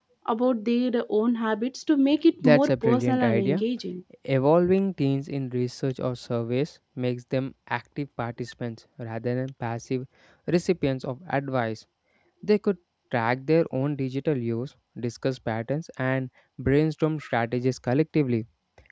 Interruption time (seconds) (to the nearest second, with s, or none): 2 s